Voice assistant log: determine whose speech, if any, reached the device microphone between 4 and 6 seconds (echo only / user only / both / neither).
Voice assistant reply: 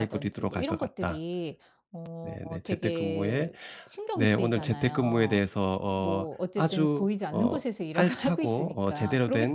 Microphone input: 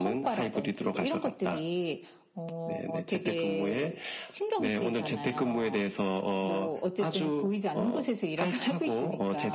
echo only